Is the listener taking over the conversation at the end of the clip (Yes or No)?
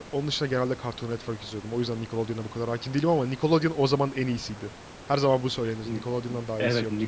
Yes